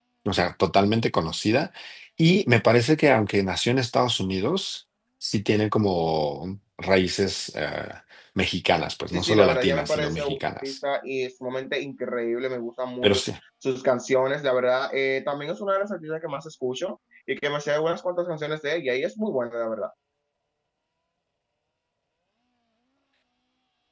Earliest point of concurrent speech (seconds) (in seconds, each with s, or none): 9.1 s